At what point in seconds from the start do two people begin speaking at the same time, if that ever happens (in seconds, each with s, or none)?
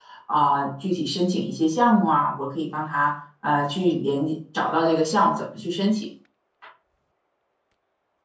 none